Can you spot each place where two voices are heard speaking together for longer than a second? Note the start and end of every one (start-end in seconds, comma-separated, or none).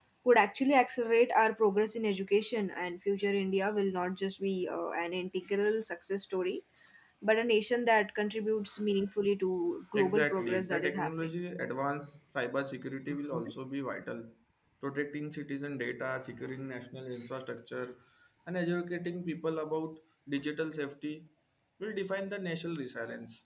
10.0-11.3